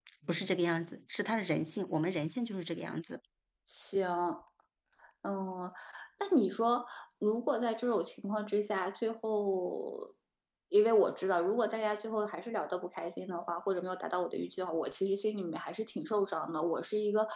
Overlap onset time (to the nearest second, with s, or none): none